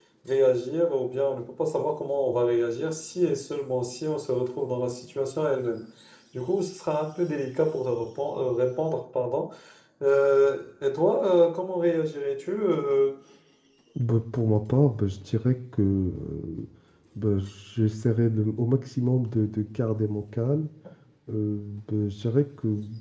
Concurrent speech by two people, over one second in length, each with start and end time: none

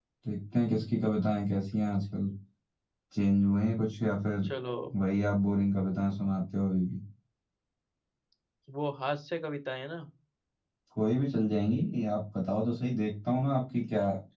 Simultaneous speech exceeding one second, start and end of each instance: none

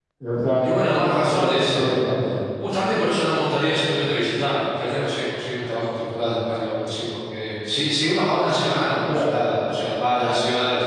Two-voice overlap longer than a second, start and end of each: 0.6-2.0

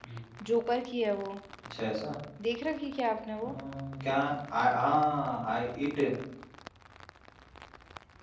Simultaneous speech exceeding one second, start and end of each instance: none

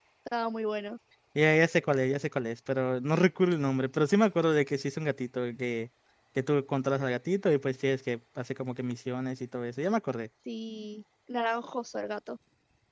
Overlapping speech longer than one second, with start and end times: none

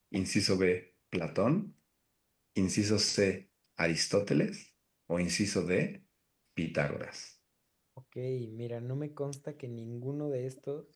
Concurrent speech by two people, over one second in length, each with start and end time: none

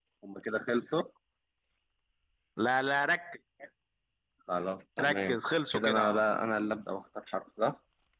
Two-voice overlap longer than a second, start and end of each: 5.0-6.2

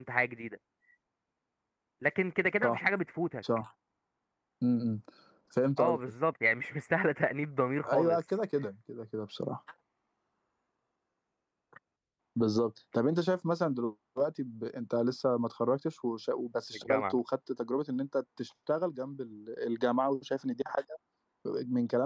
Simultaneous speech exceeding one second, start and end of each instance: none

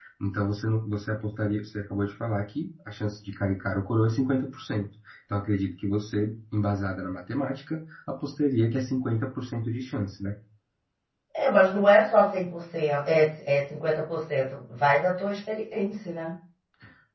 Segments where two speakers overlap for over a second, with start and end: none

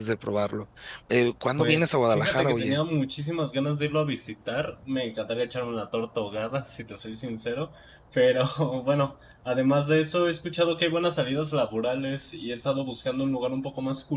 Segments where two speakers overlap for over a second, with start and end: 1.6-2.8

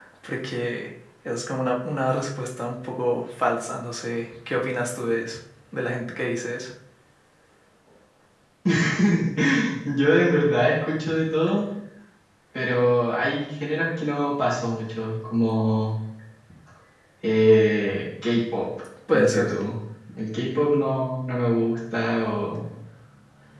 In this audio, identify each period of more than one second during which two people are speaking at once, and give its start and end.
none

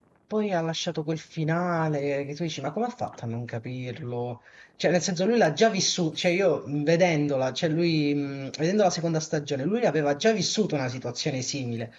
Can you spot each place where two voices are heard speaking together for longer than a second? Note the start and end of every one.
none

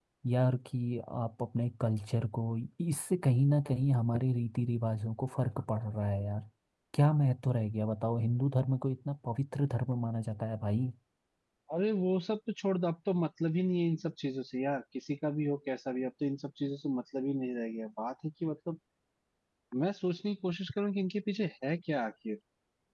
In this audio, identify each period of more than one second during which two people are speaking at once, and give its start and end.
none

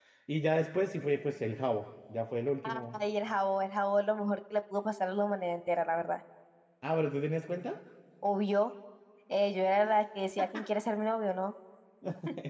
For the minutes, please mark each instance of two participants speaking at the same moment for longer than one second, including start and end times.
none

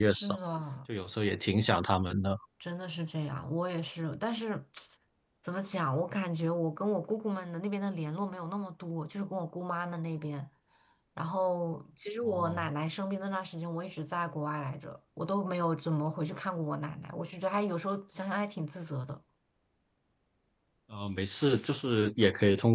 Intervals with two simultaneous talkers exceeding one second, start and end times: none

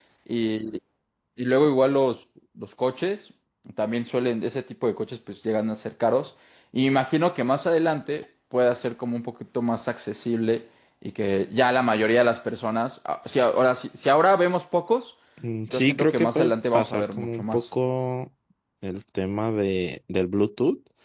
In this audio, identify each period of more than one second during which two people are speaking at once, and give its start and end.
15.7-17.7

